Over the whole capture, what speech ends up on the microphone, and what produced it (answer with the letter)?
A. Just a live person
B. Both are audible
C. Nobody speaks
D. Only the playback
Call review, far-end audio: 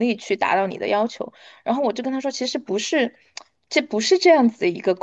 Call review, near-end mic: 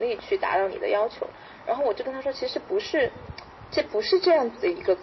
D